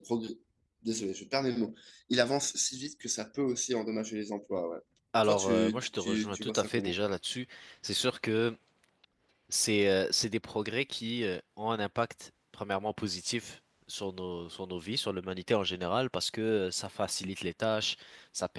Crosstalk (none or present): present